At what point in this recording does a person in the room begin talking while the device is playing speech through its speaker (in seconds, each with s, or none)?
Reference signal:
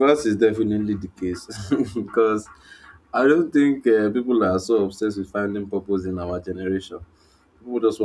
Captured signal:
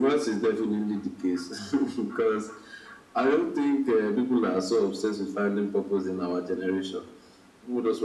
none